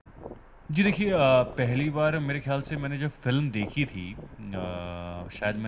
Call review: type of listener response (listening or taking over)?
listening